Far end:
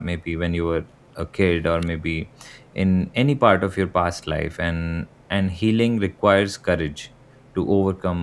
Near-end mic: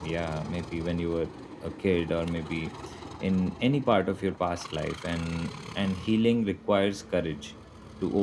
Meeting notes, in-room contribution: none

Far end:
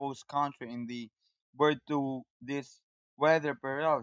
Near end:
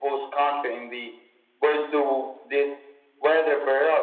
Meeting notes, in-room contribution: none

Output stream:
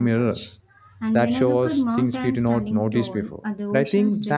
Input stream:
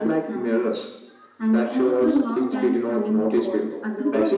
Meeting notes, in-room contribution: present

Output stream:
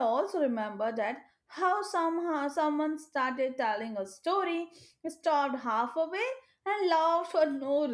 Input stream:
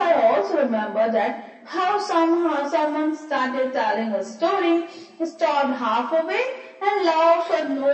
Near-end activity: none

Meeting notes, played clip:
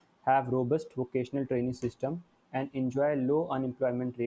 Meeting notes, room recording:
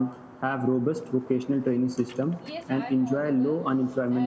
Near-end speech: present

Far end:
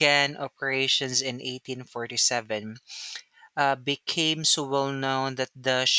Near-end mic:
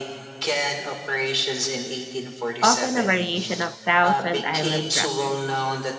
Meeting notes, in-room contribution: present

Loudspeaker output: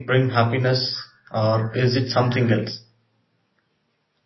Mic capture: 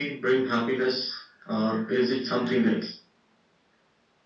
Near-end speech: none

